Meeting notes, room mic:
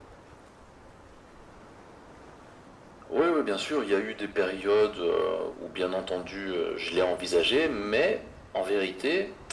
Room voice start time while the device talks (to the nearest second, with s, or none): none